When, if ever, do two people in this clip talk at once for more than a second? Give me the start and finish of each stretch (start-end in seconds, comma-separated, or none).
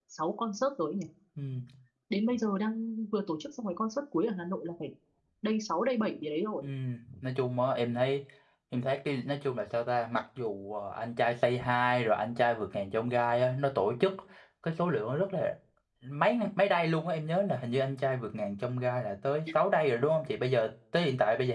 none